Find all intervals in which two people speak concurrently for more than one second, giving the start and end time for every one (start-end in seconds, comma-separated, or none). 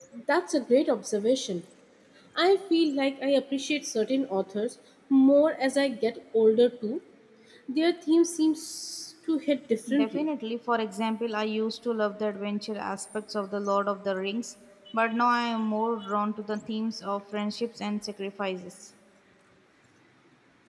none